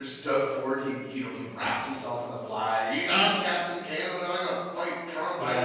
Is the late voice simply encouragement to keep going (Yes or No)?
No